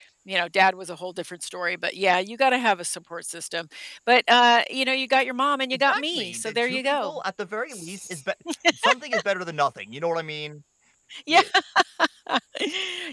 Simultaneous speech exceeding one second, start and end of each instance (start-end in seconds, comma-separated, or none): 5.7-7.1